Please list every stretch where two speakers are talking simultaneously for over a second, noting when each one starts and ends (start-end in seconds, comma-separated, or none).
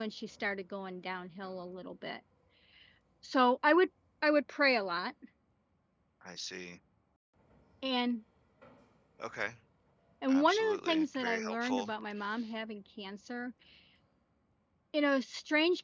10.3-11.9